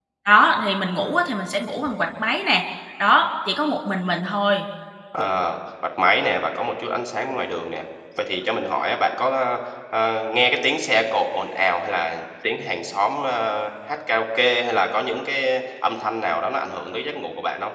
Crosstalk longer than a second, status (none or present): none